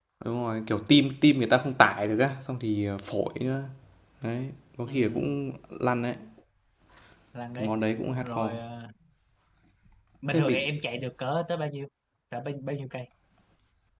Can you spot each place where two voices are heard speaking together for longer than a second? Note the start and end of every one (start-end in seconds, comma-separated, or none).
none